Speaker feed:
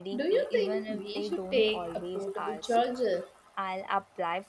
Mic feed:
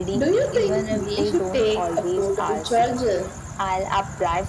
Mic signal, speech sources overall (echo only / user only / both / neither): echo only